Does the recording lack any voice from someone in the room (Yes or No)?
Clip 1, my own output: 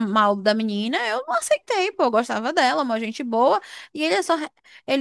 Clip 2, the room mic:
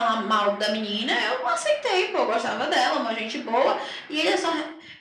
Yes